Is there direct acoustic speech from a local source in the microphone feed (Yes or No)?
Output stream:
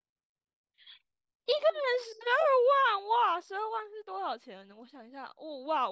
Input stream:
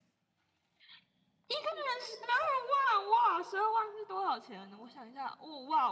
No